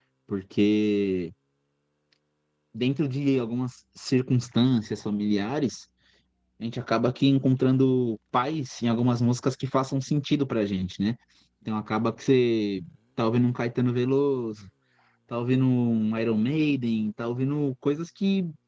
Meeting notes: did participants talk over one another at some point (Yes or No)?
No